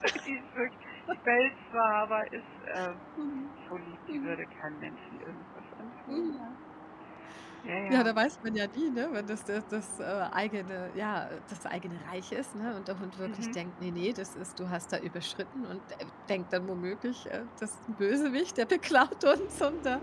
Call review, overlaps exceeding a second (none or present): none